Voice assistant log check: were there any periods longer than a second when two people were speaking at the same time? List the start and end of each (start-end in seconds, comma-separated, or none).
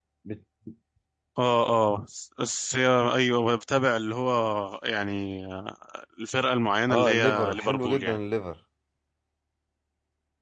6.9-8.2